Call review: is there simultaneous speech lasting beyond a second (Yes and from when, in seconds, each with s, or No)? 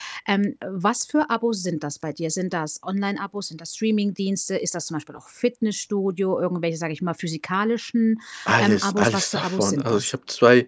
Yes, from 8.6 s